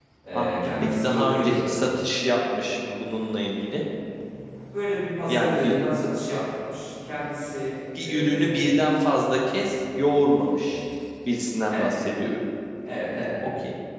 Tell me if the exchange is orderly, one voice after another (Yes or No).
No